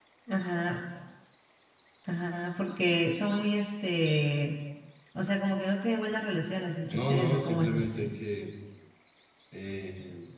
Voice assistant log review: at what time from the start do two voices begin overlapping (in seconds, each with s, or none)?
6.9 s